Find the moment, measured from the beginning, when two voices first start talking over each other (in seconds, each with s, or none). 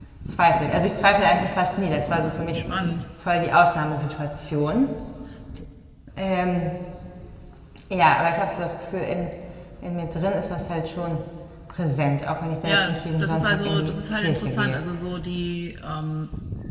12.6 s